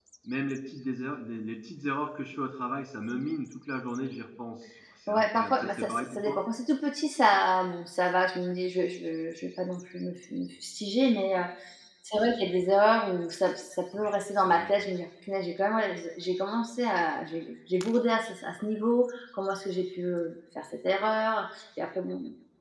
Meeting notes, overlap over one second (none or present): present